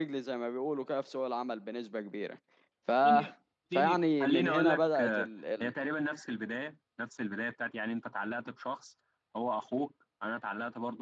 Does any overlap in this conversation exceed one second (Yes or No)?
Yes